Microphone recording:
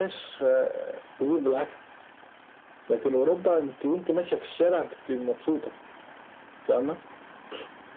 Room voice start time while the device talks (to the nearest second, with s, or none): none